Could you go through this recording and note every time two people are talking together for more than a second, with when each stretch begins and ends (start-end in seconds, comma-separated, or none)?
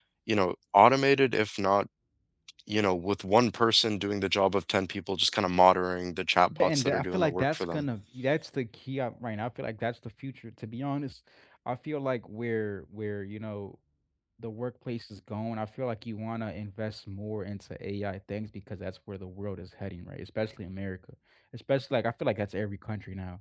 6.6-7.8